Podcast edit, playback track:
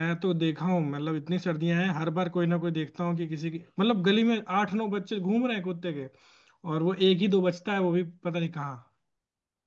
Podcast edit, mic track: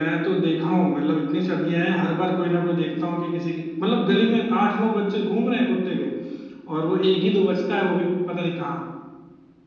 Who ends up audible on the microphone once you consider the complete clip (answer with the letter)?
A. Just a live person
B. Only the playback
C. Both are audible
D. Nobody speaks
B